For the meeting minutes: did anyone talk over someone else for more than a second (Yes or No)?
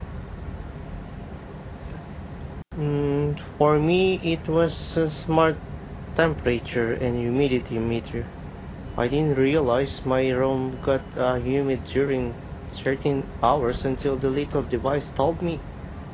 No